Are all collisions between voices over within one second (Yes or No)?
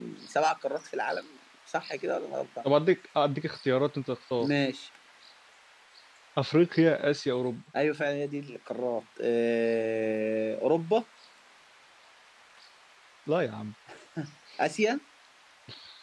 Yes